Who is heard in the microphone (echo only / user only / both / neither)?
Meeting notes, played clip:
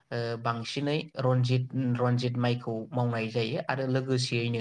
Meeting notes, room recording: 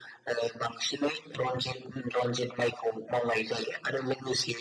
echo only